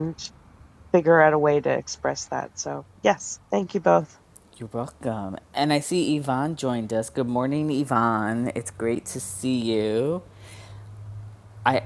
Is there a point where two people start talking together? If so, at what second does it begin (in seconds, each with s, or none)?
none